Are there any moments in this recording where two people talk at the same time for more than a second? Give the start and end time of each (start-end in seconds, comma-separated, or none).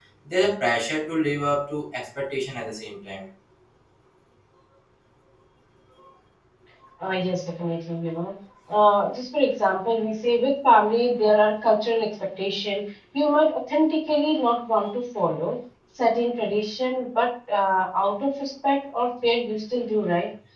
none